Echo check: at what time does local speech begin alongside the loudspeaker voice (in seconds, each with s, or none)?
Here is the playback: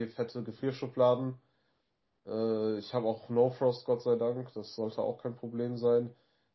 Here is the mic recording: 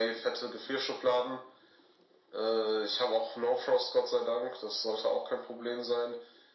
none